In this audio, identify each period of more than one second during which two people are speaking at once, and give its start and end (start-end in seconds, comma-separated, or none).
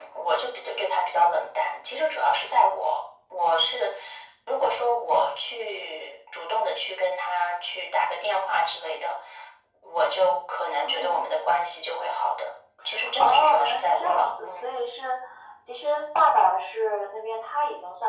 13.2-14.7